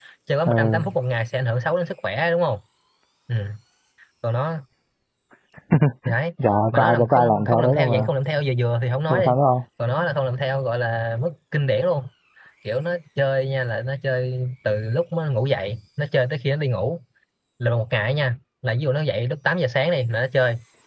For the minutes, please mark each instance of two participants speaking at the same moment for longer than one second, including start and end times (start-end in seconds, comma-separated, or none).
6.7-8.1